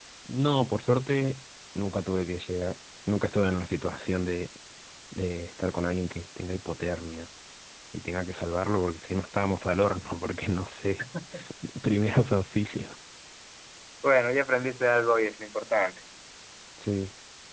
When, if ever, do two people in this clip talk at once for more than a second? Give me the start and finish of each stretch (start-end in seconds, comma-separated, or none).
none